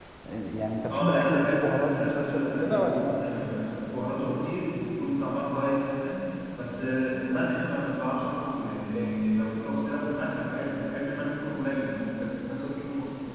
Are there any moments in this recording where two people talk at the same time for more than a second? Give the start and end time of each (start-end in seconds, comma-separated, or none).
0.9-3.2